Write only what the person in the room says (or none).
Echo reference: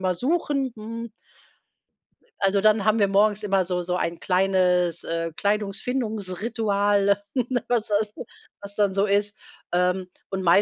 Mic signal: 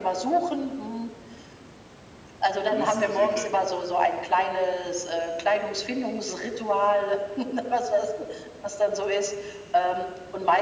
Lustig, okay.